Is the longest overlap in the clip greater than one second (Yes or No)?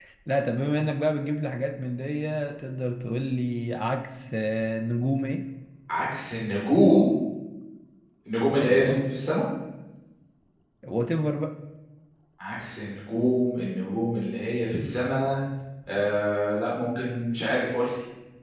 No